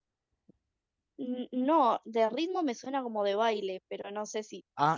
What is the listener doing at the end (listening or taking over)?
taking over